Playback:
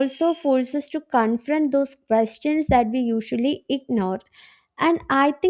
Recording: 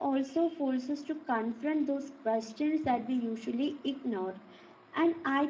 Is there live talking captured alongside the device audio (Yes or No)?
No